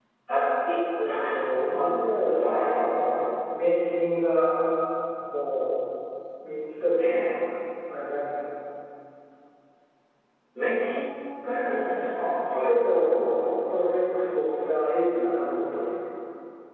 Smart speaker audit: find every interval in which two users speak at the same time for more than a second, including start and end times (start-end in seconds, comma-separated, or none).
1.0-2.7